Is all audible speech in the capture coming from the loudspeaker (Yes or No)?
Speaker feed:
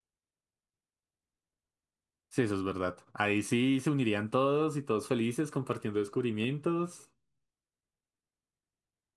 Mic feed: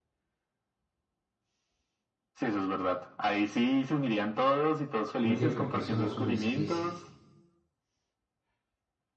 No